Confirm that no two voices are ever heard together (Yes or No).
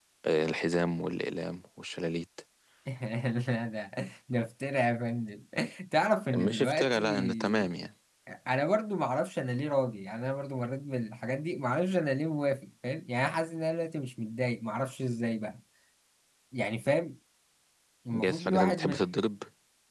No